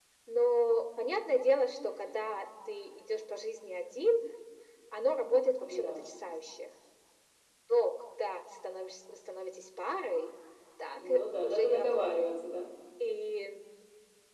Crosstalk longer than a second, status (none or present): present